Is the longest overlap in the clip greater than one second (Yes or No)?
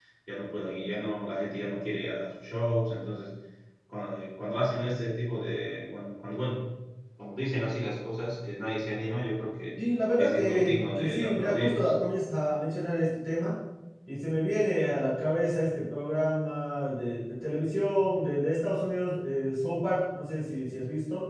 Yes